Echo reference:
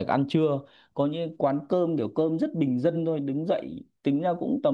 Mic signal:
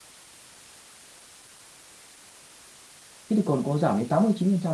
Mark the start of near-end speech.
3.3 s

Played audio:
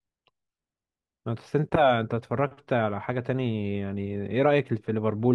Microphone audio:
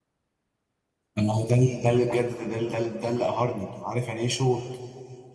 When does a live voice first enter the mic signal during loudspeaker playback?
1.2 s

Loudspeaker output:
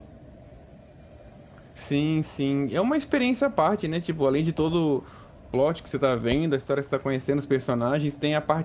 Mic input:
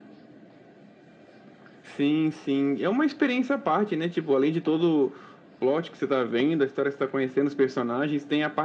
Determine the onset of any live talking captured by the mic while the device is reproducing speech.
none

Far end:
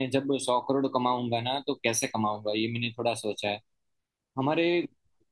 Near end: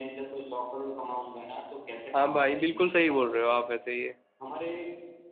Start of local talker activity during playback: 2.2 s

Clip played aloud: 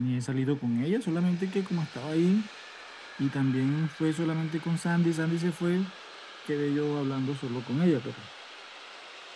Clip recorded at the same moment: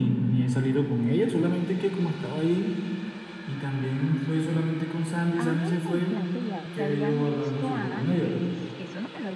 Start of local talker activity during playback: 5.4 s

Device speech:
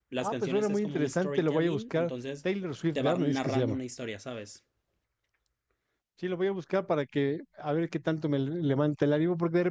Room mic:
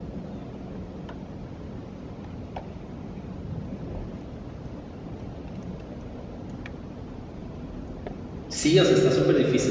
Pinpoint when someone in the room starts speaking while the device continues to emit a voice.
8.5 s

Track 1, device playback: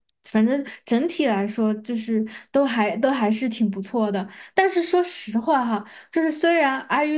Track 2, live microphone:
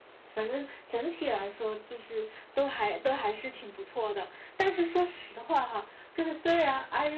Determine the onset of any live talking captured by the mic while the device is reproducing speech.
none

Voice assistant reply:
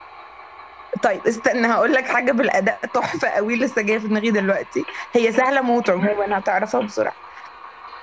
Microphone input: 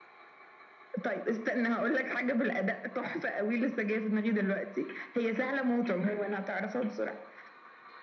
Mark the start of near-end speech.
none

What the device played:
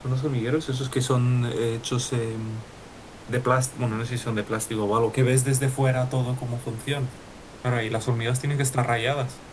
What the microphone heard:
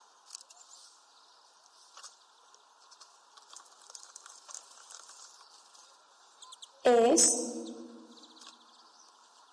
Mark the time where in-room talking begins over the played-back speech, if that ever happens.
6.8 s

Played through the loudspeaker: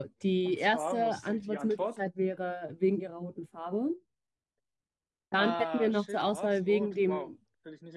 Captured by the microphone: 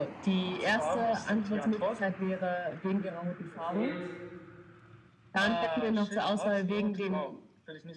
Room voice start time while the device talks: 3.5 s

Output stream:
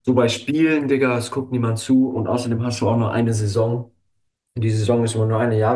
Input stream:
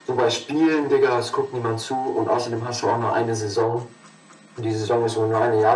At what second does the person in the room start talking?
none

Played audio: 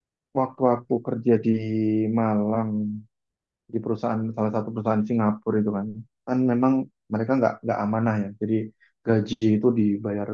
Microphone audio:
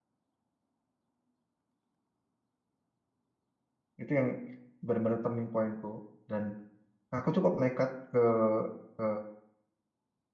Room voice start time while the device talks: 4.0 s

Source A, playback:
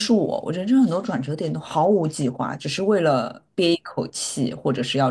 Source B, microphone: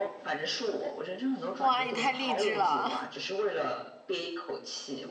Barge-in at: 1.6 s

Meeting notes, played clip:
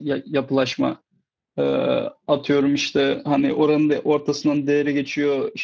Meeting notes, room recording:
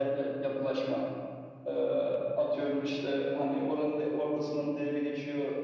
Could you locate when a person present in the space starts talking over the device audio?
none

